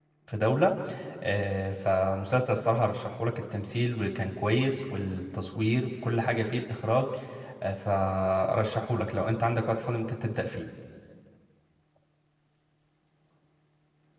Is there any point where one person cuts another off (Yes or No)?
No